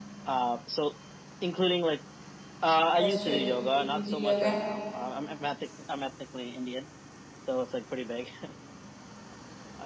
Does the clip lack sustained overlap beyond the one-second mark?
No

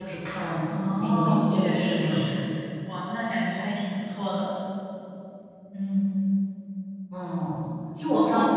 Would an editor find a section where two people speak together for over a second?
Yes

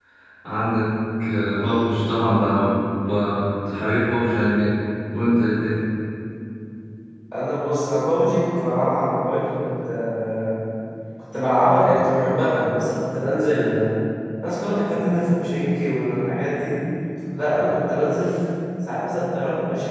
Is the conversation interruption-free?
Yes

